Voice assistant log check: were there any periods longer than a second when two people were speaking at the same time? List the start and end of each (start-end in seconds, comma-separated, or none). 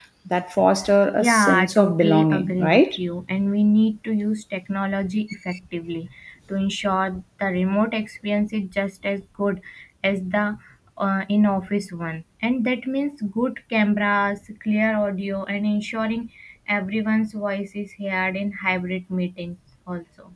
1.2-2.8